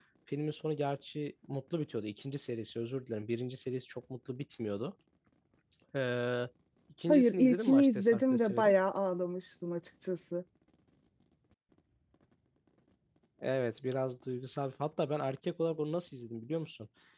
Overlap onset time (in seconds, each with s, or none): 7.1 s